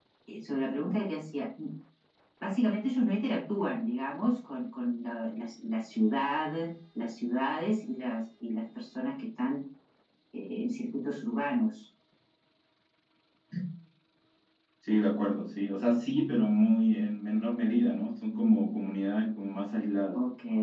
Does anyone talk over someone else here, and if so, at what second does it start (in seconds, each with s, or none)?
none